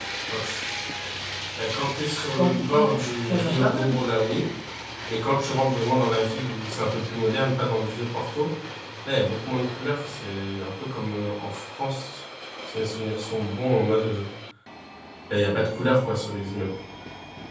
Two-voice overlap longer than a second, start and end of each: 2.2-4.0

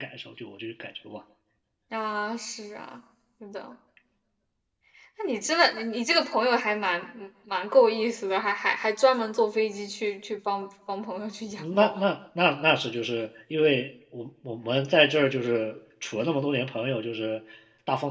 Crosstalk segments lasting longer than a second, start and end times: none

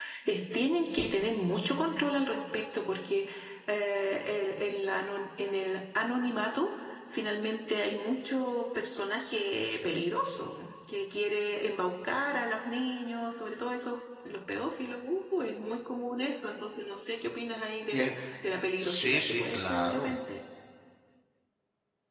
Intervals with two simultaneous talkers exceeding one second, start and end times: 18.8-20.1

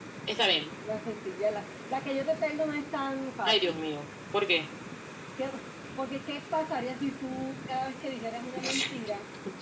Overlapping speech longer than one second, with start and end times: none

